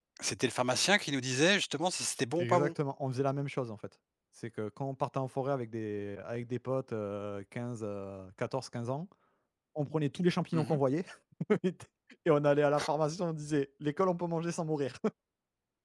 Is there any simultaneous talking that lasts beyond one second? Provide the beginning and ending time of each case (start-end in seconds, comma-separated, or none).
none